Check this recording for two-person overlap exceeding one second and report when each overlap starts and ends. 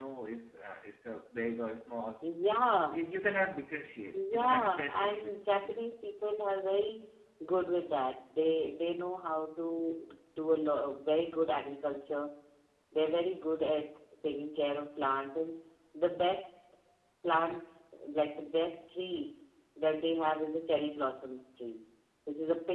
4.1-5.8

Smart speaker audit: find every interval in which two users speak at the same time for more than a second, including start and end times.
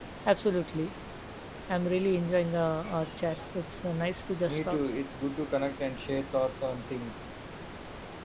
none

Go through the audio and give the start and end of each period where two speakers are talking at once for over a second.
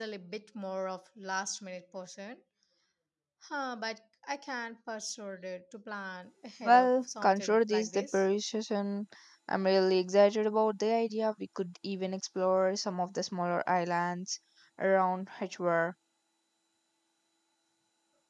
6.6-8.2

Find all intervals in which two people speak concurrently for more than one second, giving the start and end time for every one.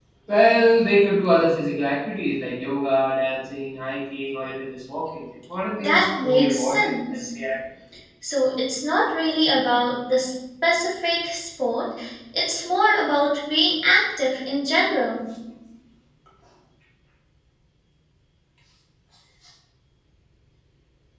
5.8-7.1

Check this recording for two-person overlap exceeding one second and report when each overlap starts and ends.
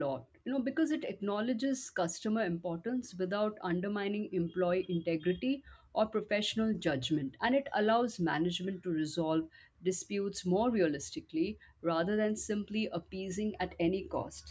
none

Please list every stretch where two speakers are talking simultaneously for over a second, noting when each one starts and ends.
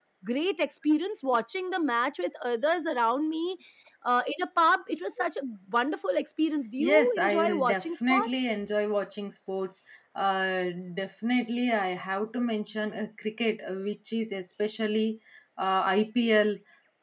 6.8-8.4

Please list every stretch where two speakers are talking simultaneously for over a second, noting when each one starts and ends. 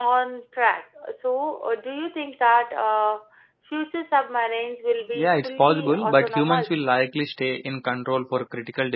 5.1-6.7

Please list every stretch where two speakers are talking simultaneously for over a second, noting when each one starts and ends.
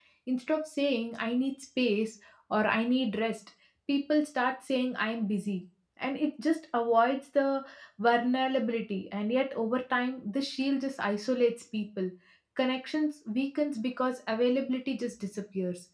none

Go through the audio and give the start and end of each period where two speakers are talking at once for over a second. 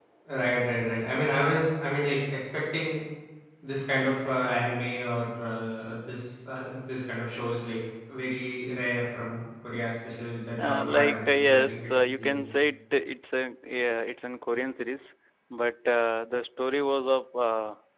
10.7-12.4

